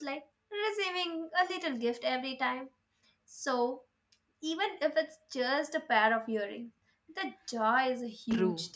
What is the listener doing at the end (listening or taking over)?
taking over